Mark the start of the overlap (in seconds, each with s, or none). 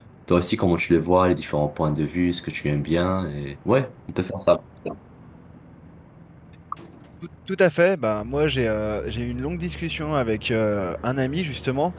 none